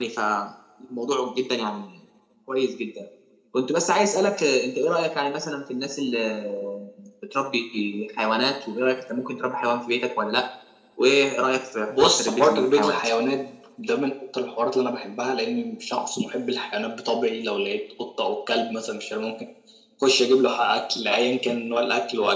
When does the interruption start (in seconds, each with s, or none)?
11.9 s